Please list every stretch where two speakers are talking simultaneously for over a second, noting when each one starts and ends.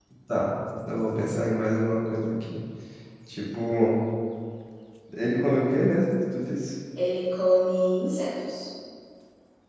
none

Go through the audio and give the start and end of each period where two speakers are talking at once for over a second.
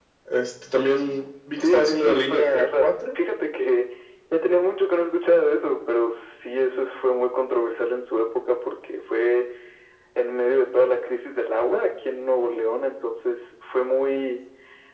1.6-2.9

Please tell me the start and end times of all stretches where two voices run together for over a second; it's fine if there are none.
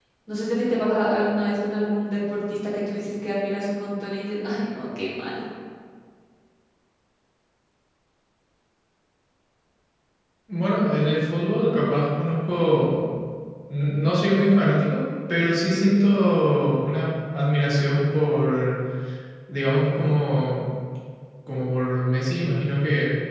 none

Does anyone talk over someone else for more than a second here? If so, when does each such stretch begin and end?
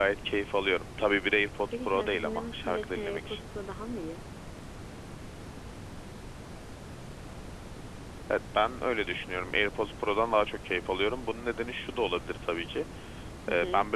1.7-3.4

